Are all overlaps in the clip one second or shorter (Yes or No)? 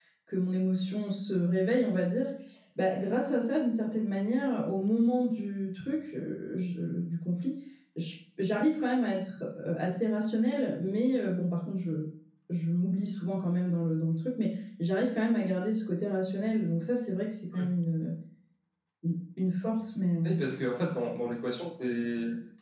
Yes